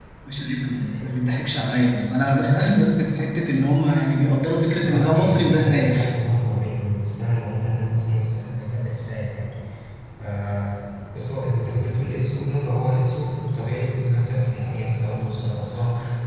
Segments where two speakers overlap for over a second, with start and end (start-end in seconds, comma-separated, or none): 4.8-6.1